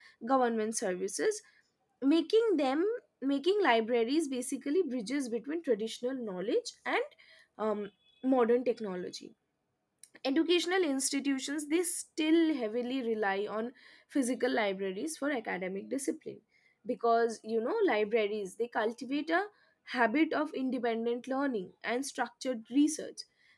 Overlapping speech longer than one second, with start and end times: none

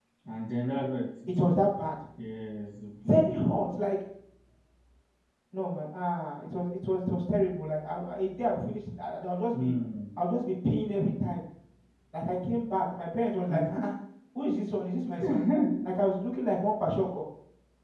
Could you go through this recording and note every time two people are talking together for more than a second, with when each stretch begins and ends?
none

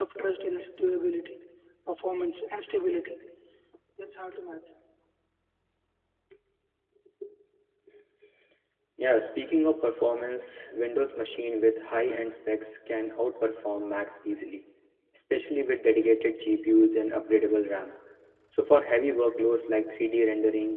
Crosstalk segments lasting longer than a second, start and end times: none

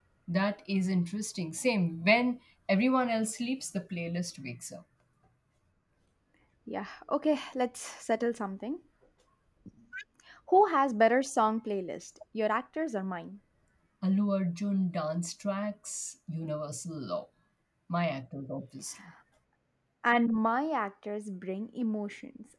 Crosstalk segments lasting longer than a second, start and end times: none

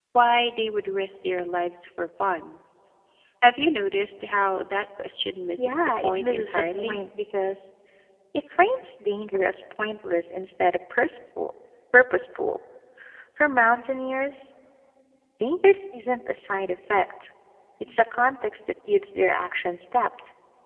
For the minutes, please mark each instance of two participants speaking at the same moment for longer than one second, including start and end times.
5.6-7.0

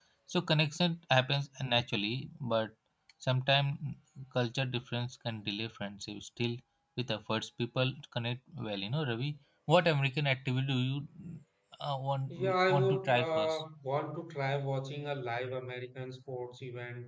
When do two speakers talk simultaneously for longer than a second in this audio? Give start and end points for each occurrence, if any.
12.3-13.6

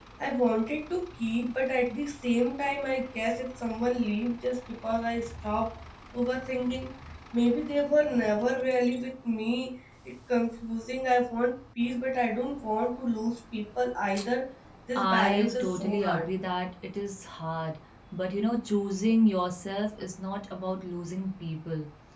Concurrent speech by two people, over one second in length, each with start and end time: 14.9-16.3

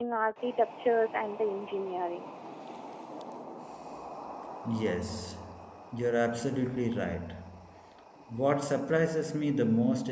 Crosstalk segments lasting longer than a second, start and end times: none

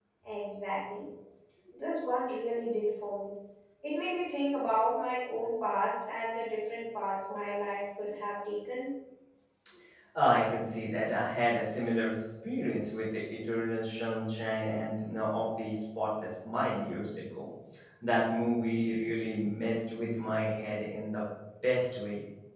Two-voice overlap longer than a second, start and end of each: none

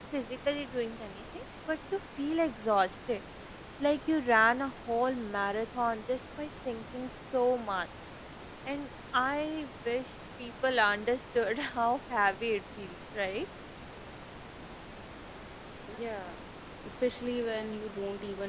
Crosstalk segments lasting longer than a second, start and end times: none

